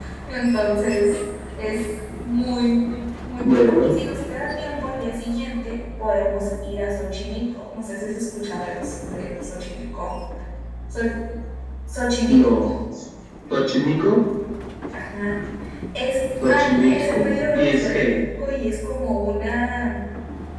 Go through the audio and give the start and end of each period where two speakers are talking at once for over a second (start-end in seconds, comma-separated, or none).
16.5-18.1